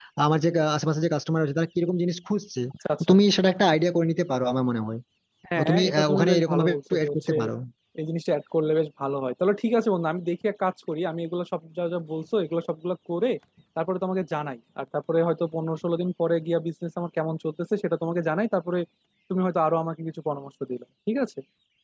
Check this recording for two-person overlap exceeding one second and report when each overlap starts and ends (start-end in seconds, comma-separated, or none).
5.6-7.3